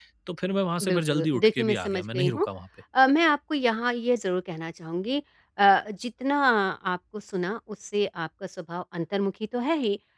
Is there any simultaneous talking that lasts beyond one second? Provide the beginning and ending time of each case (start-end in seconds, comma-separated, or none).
0.8-2.5